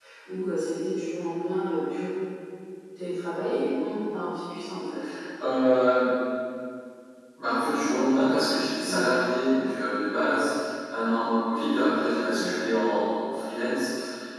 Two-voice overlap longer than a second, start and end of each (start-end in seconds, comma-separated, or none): none